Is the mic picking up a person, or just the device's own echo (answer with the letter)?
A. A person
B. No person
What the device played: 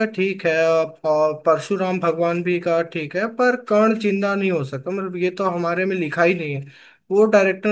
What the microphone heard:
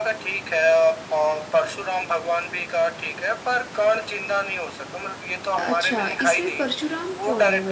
A